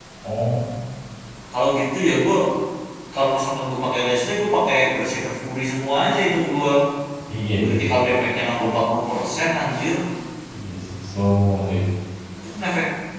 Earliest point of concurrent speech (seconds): none

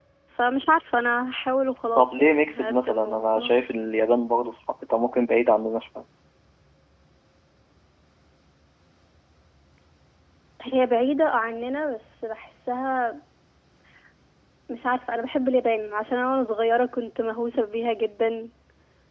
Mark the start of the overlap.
1.9 s

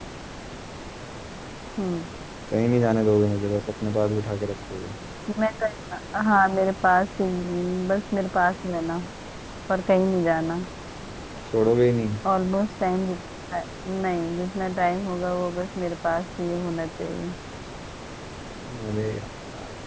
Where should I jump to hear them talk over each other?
none

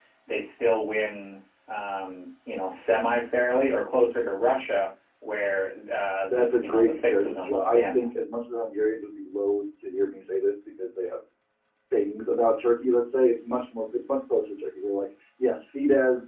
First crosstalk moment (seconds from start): 6.3 s

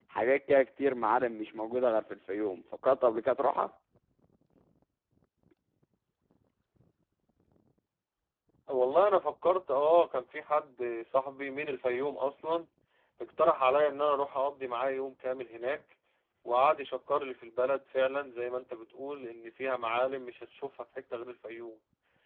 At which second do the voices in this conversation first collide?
none

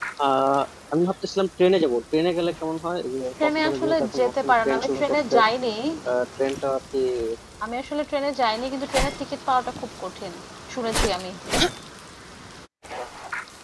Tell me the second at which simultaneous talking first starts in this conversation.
3.4 s

